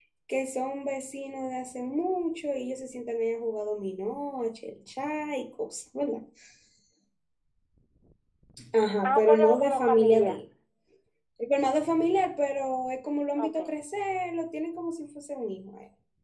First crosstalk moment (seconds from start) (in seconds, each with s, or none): 9.0 s